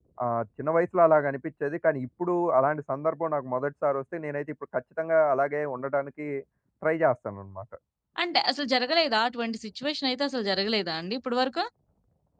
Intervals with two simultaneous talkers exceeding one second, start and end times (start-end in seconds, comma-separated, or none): none